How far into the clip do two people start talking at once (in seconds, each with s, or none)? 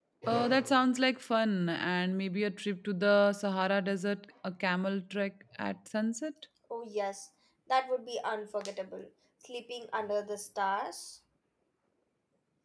none